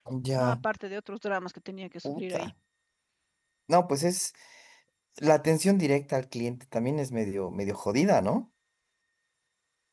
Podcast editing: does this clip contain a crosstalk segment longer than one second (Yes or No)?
No